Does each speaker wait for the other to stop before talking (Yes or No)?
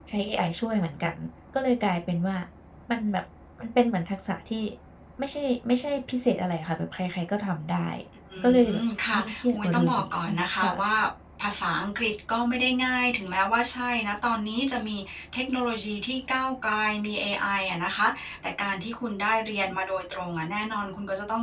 No